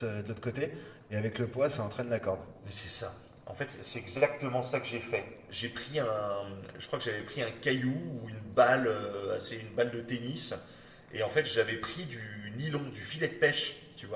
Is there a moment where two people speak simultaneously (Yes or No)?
No